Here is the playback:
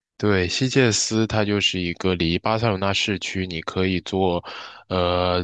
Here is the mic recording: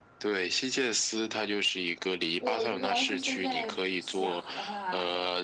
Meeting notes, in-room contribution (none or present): present